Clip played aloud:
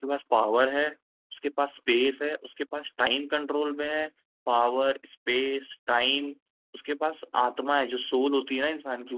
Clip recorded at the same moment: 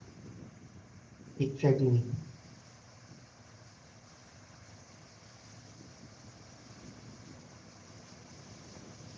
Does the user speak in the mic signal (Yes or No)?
Yes